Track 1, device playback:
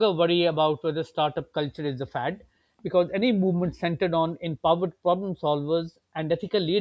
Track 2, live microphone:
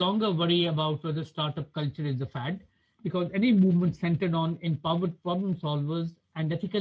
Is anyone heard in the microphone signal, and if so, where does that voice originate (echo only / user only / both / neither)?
echo only